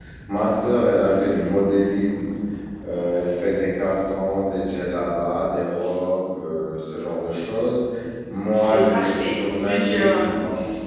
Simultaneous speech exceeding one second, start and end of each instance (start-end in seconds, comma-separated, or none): 8.5-10.3